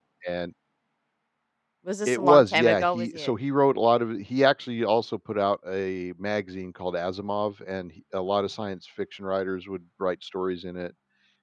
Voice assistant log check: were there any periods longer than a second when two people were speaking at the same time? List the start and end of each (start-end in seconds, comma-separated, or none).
2.1-3.3